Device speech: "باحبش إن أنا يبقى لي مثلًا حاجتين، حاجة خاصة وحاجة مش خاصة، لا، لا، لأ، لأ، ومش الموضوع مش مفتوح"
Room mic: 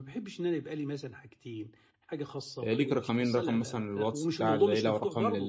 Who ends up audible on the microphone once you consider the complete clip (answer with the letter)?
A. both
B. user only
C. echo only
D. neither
A